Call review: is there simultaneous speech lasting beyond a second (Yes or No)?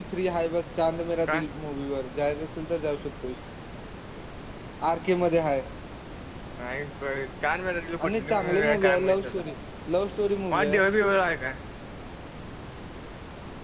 Yes